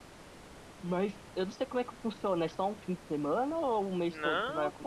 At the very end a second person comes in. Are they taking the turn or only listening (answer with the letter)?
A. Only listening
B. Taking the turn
B